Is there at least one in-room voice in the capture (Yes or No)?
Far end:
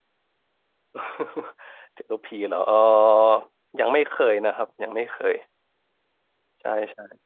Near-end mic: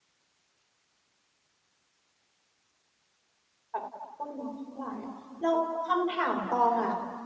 Yes